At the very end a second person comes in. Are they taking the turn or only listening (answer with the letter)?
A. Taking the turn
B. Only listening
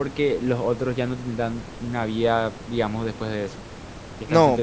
A